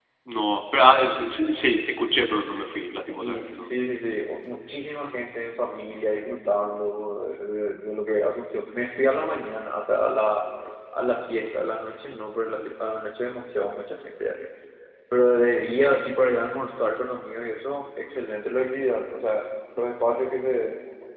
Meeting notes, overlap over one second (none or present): none